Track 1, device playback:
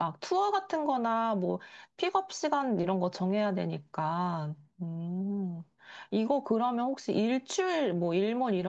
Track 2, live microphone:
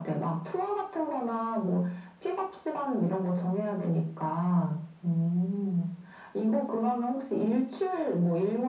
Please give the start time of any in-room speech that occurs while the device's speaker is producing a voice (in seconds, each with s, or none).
none